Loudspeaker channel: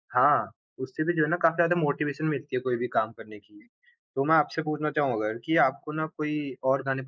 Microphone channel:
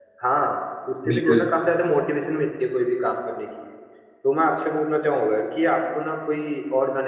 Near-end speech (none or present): present